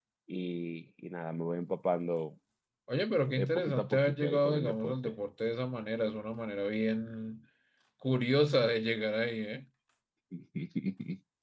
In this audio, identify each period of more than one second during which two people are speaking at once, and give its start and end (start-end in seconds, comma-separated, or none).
3.4-5.1